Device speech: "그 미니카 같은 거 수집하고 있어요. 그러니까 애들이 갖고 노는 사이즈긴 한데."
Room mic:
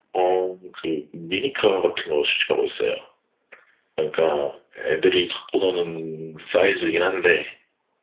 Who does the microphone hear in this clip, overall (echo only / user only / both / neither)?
echo only